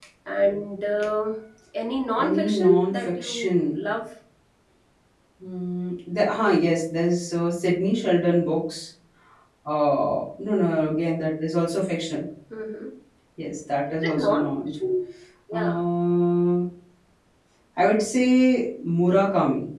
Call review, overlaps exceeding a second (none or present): present